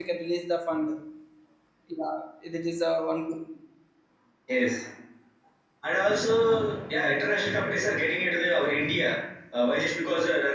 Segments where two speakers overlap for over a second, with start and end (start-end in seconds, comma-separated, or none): none